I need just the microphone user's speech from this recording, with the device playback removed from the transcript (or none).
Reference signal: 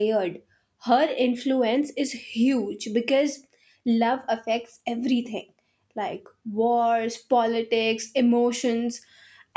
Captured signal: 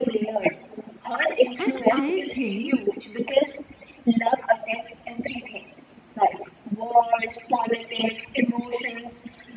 And I think